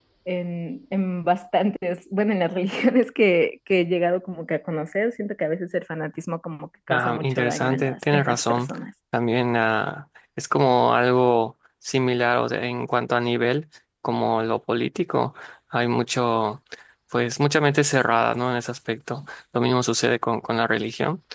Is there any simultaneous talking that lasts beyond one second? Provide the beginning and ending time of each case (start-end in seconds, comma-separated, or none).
6.9-8.6